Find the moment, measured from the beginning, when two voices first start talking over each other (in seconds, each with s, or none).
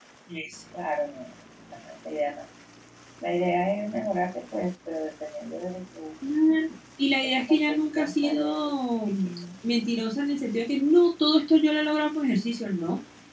7.2 s